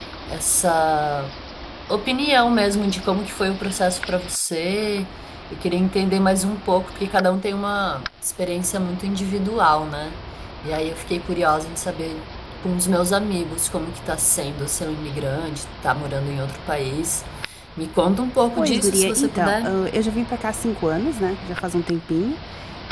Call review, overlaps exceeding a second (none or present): present